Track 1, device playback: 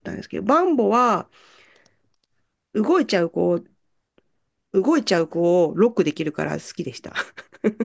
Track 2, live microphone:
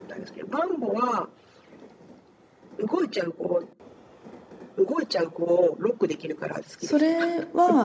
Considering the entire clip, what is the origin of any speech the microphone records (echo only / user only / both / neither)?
both